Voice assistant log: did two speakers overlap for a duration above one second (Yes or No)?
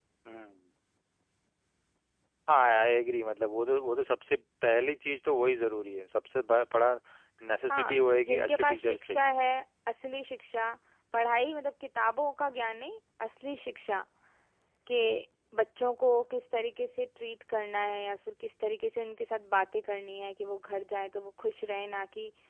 Yes